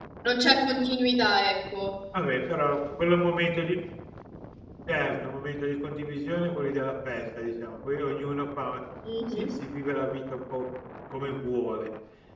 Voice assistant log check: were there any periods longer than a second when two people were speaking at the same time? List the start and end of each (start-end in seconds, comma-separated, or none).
none